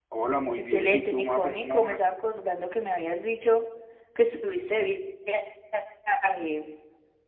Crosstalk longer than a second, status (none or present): present